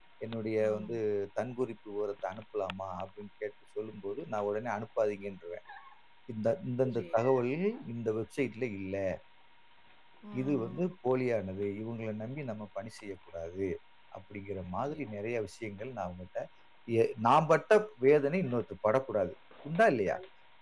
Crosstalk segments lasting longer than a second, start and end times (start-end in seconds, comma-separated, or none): none